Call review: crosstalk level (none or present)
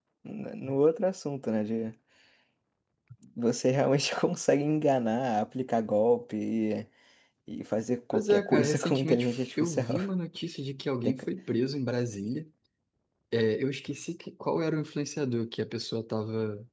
present